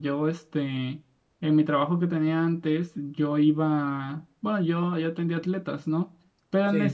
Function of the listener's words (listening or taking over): listening